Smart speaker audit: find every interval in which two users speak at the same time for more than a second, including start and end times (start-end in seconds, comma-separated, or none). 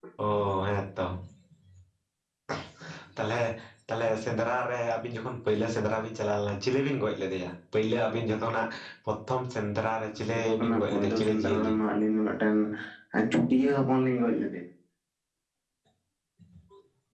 10.3-11.7